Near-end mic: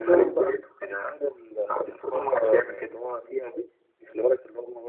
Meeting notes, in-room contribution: none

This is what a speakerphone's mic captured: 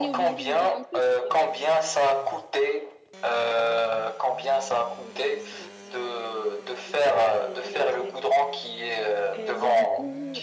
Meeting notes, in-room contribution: present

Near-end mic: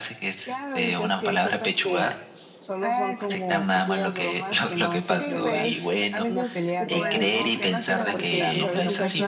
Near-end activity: present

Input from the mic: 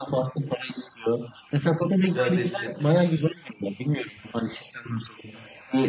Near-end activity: present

